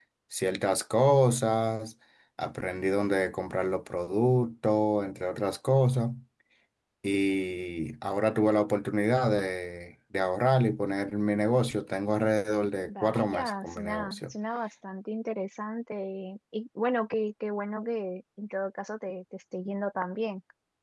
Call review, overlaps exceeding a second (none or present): present